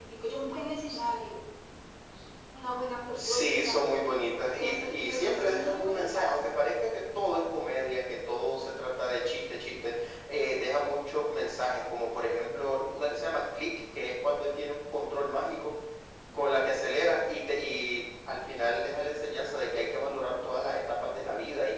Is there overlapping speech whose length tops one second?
Yes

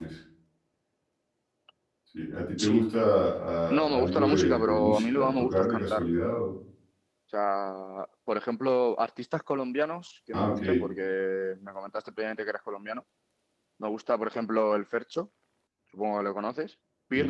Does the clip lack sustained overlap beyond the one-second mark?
No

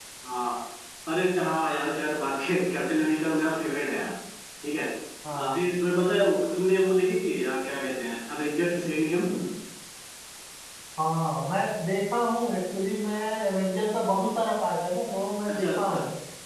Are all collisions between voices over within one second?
Yes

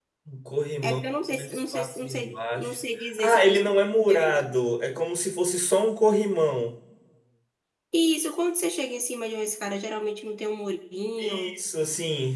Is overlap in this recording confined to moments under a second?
No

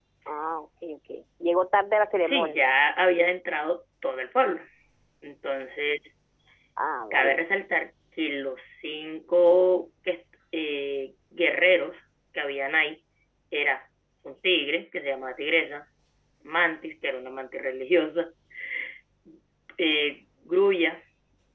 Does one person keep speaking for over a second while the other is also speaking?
No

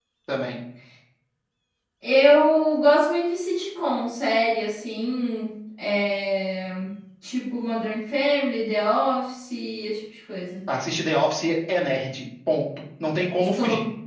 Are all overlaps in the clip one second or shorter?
Yes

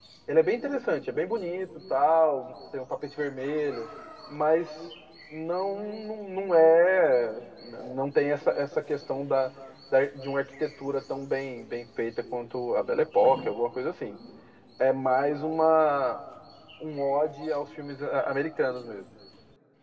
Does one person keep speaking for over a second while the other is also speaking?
No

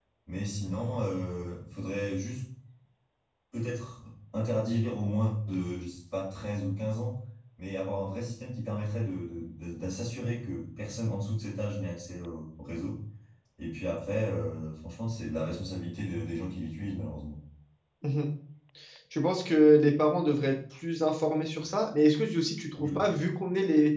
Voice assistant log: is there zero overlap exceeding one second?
Yes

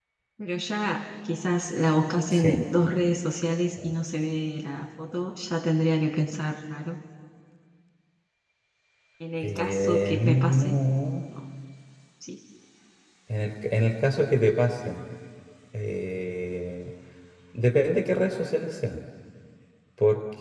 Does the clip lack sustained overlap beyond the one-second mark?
No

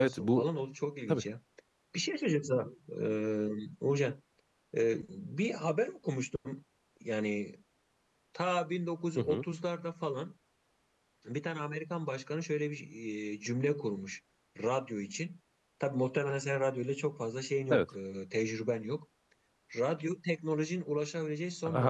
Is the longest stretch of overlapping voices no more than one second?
Yes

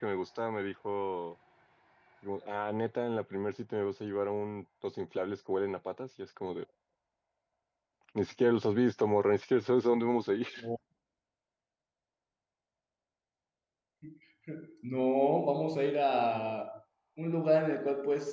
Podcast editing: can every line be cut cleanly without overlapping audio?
Yes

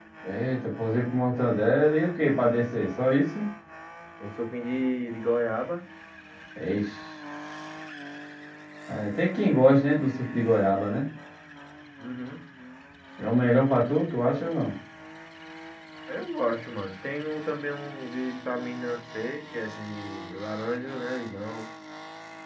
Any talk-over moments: No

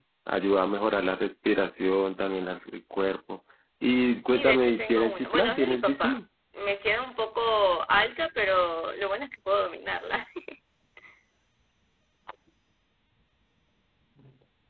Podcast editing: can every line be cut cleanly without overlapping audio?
No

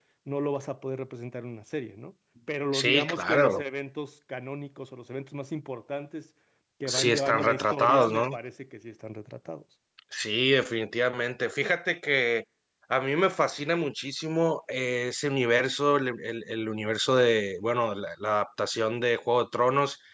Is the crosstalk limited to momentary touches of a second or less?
No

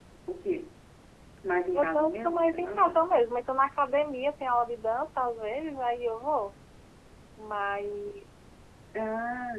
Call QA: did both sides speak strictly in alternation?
No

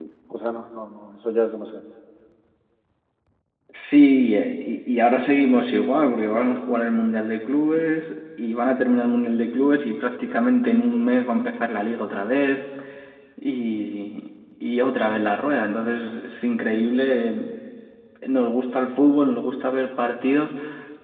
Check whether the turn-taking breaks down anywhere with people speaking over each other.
No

